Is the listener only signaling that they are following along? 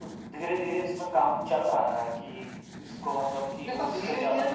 No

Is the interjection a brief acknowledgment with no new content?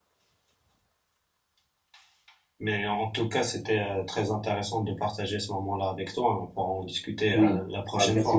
No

